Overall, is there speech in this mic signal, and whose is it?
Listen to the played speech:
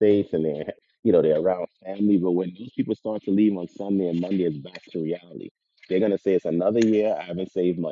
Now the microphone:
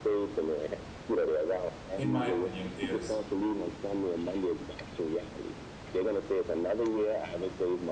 both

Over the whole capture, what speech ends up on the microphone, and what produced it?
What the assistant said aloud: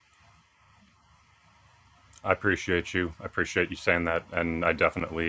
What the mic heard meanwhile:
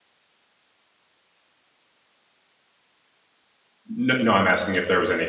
user only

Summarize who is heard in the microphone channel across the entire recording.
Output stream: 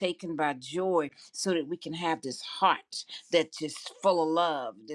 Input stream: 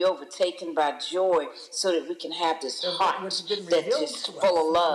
both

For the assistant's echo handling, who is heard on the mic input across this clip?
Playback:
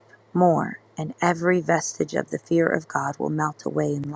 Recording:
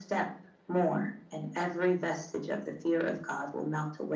echo only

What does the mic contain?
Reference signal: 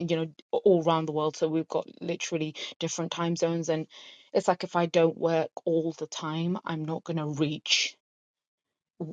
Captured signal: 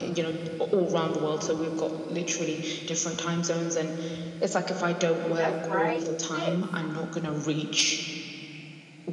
both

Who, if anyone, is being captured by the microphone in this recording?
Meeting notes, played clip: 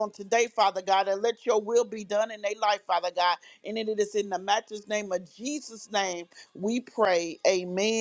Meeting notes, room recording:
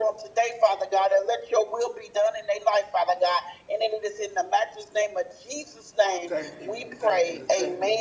both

